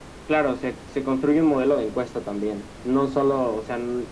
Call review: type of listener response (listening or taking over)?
listening